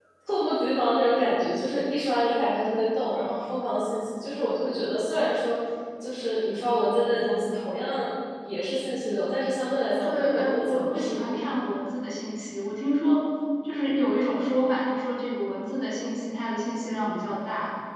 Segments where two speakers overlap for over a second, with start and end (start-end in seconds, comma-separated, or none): 10.0-11.5